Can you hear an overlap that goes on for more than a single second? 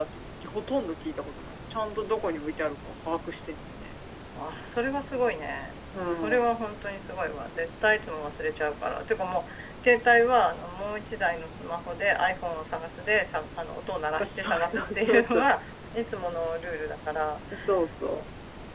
Yes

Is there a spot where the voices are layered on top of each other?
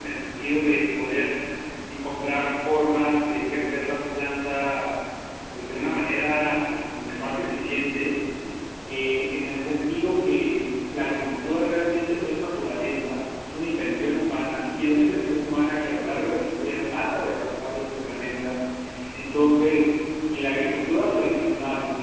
No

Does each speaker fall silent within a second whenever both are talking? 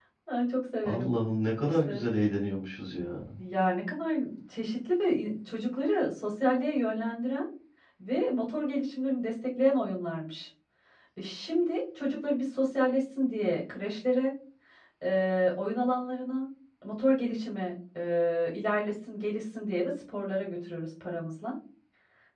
Yes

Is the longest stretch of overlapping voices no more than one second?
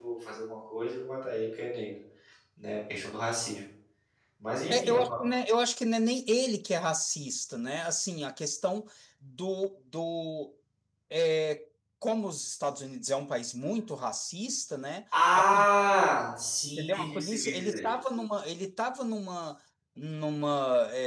No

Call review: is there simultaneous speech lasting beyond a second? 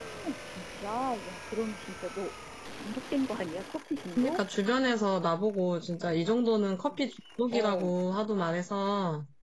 No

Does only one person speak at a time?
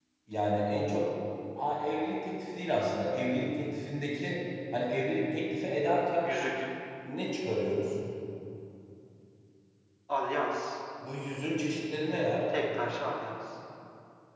Yes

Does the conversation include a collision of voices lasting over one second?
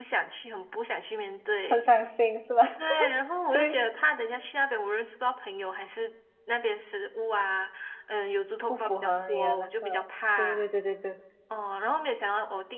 Yes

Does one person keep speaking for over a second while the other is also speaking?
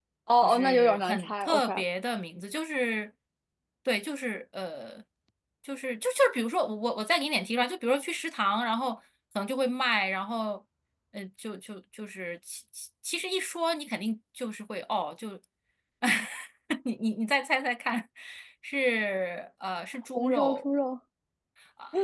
Yes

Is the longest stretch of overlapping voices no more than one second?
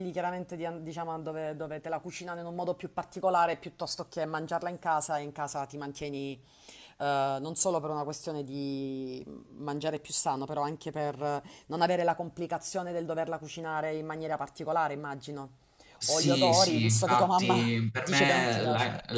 No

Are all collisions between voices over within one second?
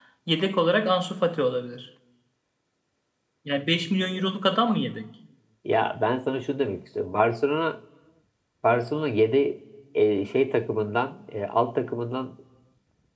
Yes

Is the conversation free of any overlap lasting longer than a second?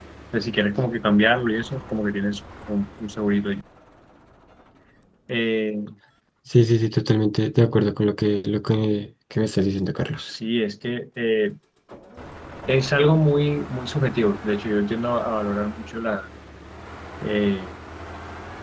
Yes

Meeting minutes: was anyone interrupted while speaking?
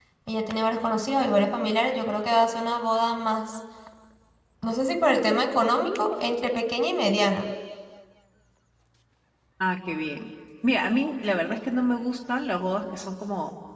No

